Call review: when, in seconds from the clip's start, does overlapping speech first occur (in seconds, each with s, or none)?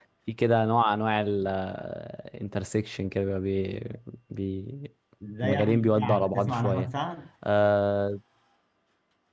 5.4 s